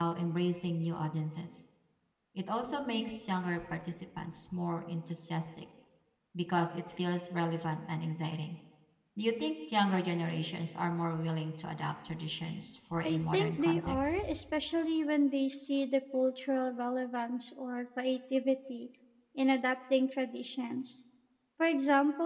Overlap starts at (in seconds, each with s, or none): 13.0 s